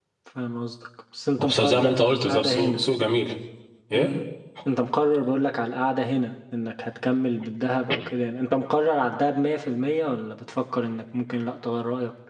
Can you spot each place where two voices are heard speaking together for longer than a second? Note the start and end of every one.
1.4-2.8

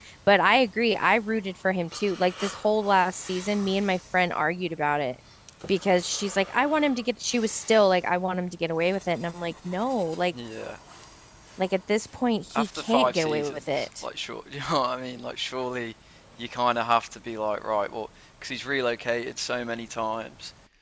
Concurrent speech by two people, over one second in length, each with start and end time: 12.5-13.9

